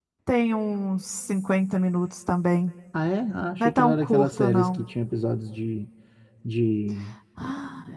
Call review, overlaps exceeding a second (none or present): present